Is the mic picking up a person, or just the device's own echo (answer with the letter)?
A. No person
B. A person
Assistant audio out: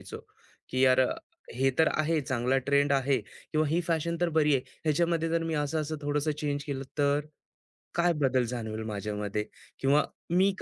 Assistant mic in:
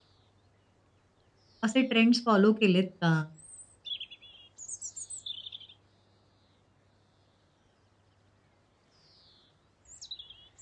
B